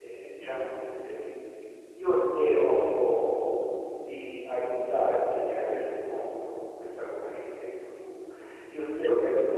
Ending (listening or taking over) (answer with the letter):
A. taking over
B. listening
B